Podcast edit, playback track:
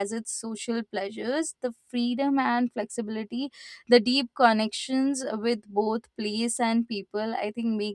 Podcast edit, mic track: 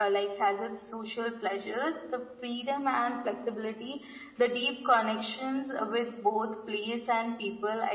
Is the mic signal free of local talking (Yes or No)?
Yes